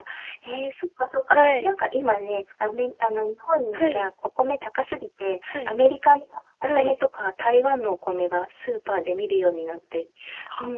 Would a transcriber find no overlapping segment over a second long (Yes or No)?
Yes